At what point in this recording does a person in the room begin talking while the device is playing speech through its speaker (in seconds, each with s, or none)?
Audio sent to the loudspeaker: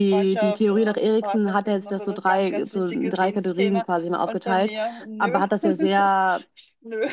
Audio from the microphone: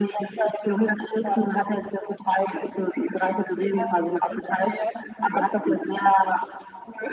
none